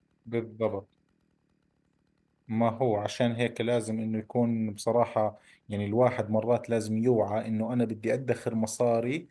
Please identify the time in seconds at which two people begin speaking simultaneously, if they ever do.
none

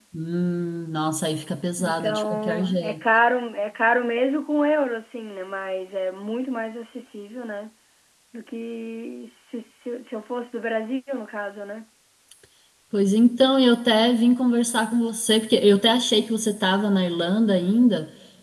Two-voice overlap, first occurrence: 1.8 s

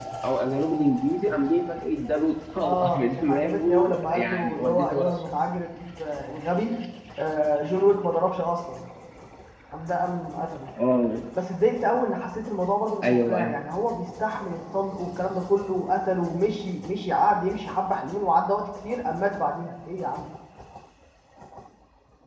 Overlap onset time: 2.6 s

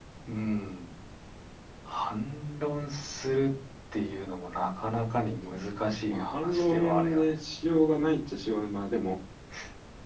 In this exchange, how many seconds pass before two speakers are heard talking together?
6.1 s

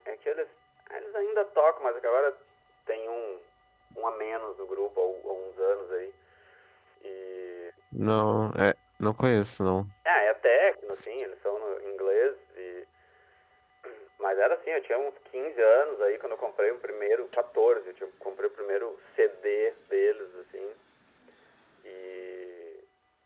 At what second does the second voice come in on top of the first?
none

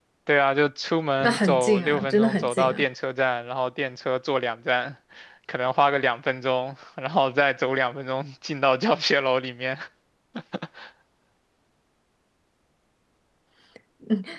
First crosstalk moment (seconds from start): 1.2 s

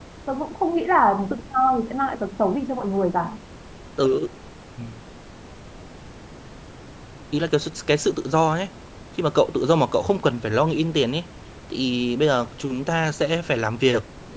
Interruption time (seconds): none

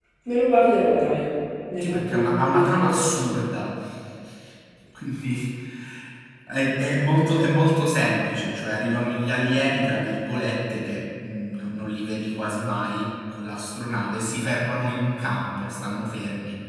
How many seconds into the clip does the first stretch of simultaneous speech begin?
1.8 s

